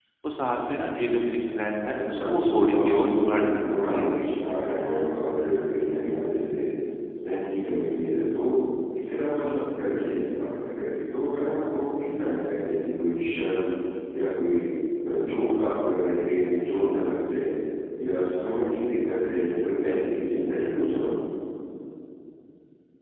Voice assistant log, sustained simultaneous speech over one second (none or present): present